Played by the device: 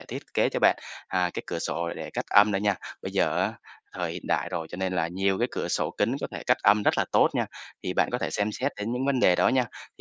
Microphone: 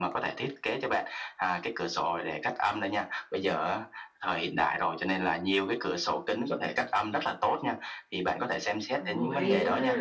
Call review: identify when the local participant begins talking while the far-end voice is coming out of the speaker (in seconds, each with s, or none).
9.0 s